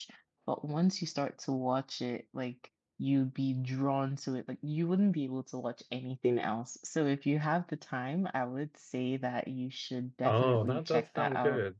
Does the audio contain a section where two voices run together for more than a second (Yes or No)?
Yes